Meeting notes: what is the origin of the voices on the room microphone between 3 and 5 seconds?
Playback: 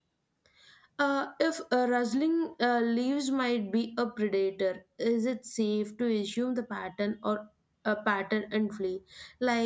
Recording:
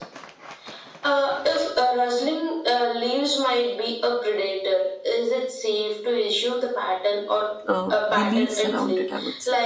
echo only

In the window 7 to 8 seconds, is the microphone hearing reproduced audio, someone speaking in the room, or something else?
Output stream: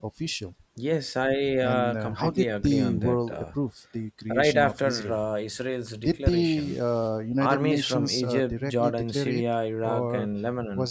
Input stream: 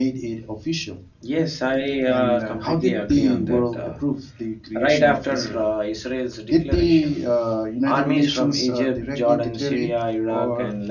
echo only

